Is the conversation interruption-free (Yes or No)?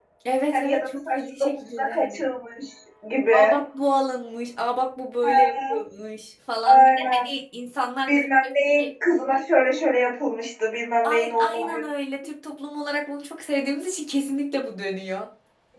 No